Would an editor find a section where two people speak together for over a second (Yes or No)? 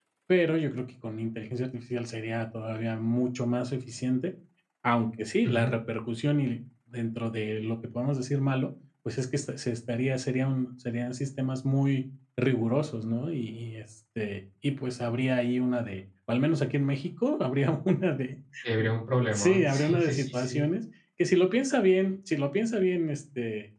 Yes